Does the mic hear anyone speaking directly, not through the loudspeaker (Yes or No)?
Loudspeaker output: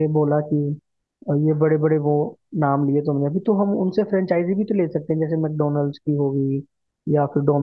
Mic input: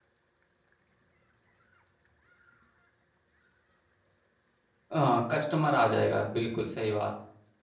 Yes